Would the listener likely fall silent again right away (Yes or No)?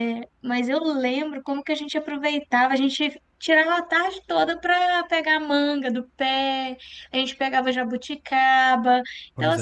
Yes